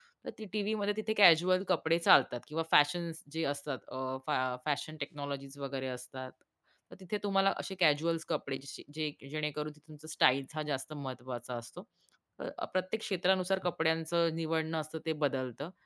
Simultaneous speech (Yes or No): No